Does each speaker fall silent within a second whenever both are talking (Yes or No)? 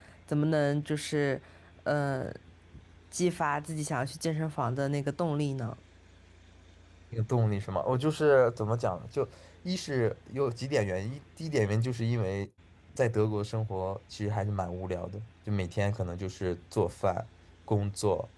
Yes